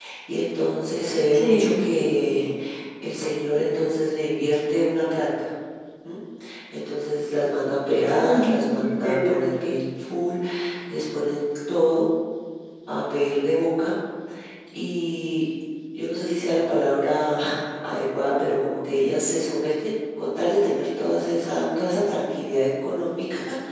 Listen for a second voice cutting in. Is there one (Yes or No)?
Yes